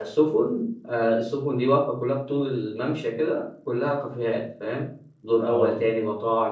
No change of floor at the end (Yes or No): Yes